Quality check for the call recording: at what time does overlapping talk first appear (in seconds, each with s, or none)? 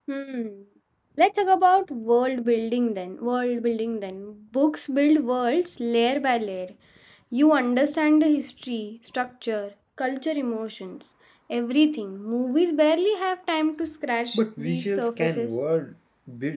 14.3 s